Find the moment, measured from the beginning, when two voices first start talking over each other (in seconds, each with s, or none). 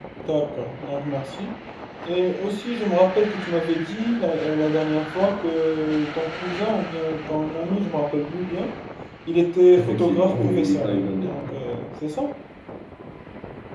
9.8 s